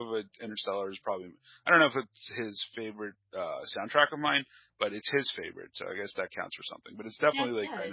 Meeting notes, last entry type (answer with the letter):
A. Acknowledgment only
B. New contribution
A